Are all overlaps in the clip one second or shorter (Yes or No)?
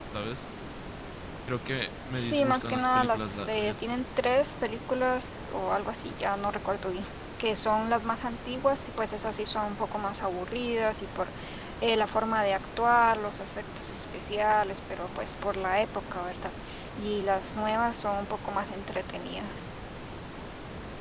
No